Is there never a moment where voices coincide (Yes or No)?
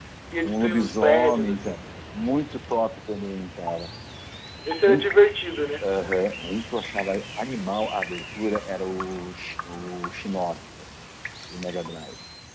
No